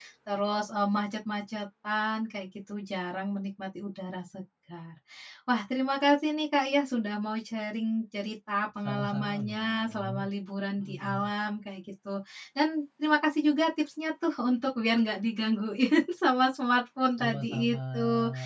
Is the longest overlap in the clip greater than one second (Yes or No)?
Yes